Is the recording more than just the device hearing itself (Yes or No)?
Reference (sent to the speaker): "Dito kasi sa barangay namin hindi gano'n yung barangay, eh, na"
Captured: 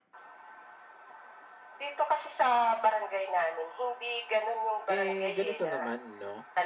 Yes